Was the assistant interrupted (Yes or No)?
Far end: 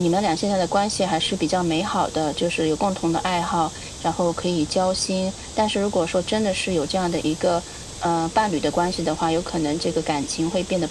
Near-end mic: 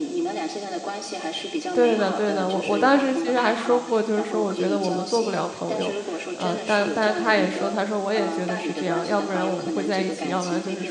Yes